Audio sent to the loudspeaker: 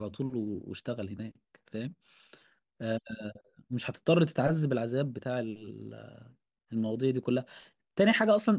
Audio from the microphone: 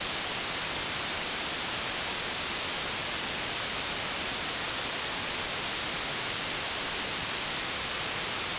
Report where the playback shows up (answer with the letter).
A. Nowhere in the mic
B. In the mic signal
A